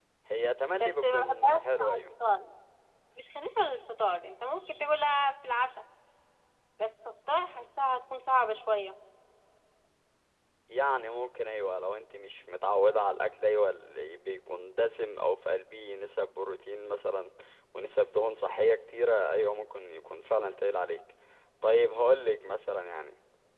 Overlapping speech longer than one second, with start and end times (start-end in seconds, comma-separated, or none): 0.8-2.0